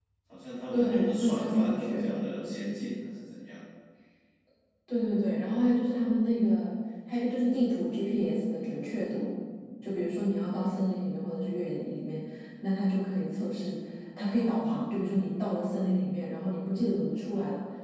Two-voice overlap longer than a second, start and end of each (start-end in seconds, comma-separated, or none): 0.7-2.0